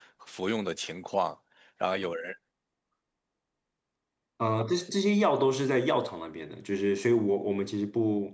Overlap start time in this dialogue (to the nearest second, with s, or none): none